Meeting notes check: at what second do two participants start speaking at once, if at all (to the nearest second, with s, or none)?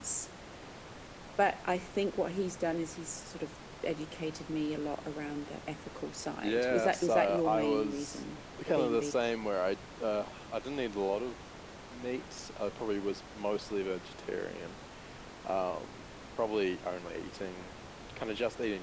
6 s